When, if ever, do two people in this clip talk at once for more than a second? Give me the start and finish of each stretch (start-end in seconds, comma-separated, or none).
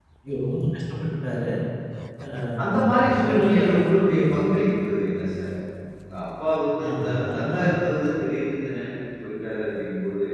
2.6-4.2